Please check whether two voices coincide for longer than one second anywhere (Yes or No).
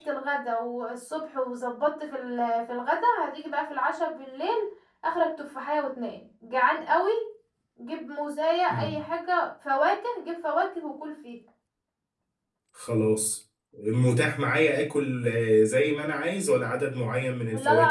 No